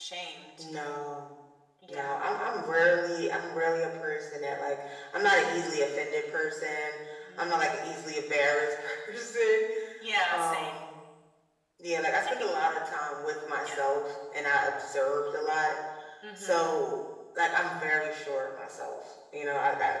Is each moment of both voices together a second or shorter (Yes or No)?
Yes